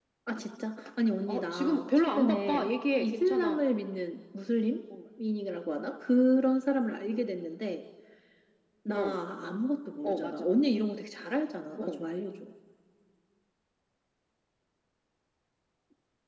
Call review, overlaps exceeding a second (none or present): present